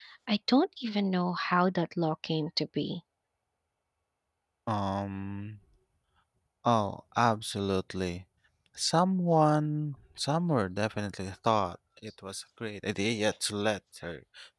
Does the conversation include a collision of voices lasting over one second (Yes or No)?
No